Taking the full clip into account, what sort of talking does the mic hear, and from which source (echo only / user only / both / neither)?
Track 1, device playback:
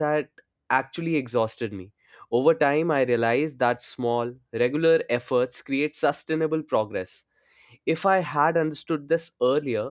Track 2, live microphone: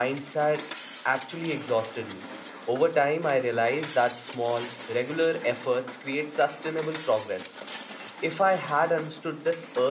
echo only